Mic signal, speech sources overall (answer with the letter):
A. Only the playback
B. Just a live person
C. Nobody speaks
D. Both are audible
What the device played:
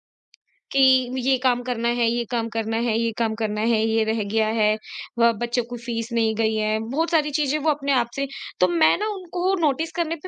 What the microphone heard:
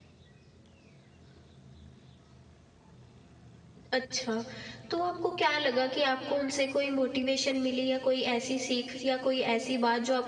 B